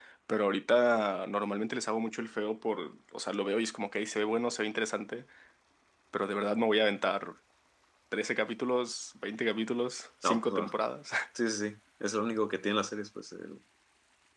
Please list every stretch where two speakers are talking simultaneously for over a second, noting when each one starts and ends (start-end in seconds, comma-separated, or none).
none